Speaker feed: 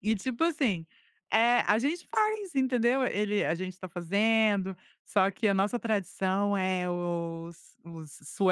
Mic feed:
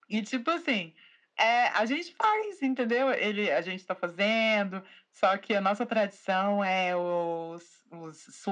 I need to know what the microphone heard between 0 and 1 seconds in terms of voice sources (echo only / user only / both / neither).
echo only